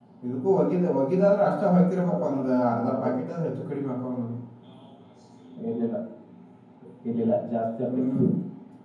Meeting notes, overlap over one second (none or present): none